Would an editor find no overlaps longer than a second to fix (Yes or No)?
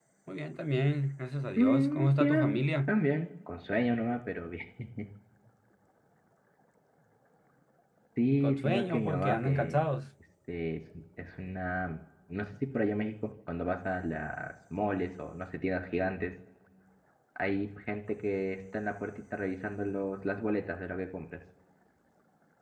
No